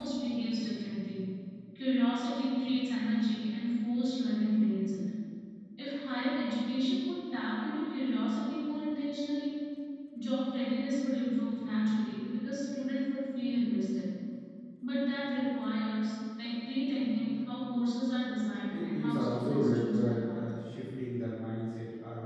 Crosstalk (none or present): present